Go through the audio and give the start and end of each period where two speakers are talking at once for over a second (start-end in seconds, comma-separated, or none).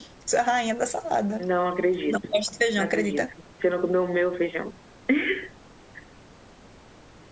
none